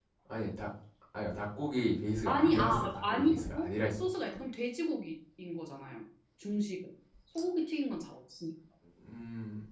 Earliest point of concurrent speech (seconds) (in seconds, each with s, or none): 2.2 s